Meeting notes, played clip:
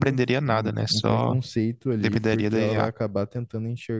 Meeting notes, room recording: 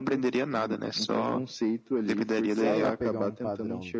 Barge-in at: 2.5 s

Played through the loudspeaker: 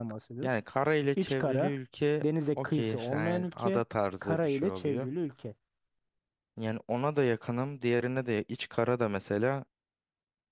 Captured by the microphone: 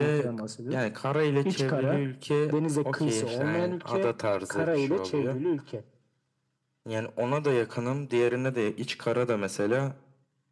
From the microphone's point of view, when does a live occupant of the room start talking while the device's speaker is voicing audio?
none

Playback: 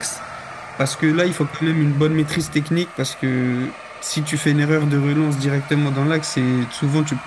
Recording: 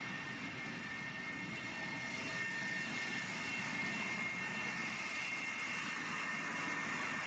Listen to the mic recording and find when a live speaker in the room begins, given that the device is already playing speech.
none

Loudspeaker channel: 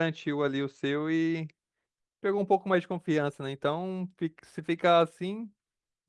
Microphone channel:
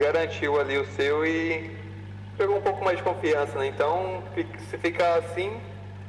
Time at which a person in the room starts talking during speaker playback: none

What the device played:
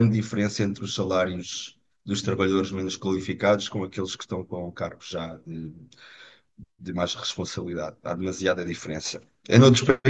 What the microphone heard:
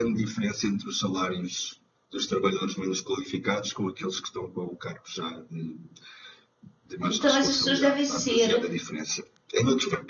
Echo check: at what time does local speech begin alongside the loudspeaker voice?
7.0 s

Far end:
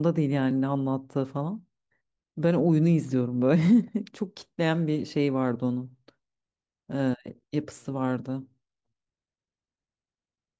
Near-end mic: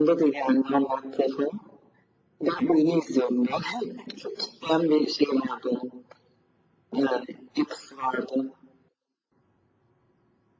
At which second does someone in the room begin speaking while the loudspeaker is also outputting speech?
none

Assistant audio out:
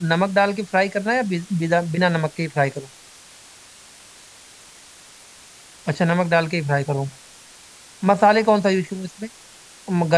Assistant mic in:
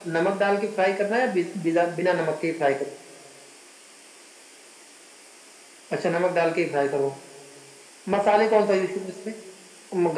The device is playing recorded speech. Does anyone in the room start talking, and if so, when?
none

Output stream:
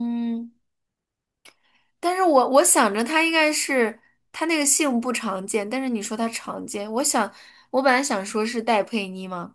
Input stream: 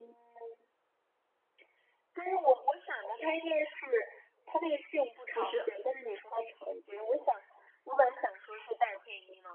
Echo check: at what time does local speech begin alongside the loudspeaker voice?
5.3 s

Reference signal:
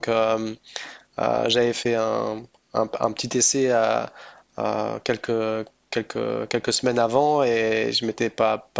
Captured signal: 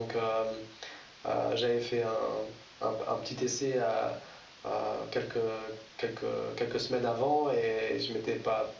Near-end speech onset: none

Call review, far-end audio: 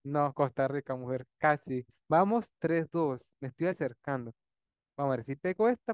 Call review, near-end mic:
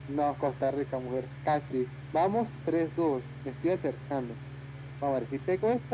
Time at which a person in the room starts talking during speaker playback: none

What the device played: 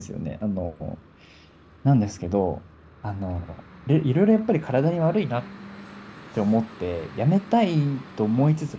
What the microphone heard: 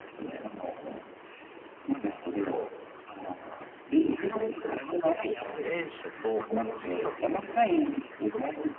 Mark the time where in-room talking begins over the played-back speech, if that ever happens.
5.3 s

